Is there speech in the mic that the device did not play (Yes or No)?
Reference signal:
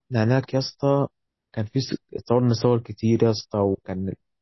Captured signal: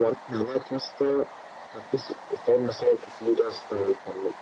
No